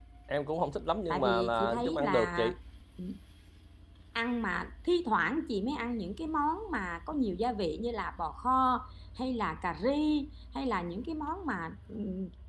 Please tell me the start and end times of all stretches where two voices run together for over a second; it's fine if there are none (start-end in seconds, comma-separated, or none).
1.1-2.5